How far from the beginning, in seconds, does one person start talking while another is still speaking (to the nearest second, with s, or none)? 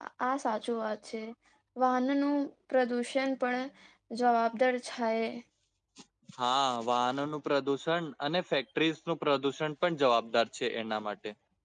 none